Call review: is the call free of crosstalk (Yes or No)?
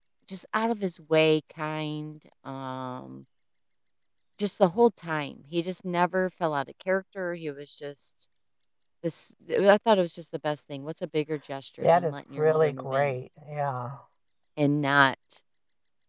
No